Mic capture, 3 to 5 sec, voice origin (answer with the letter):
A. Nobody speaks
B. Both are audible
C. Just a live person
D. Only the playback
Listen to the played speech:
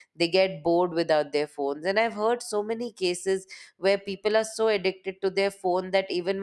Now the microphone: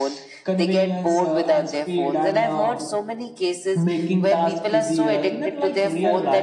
B